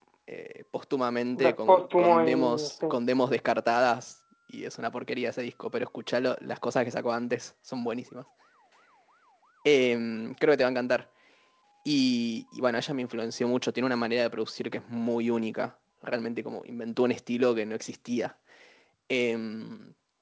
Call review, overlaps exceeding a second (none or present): present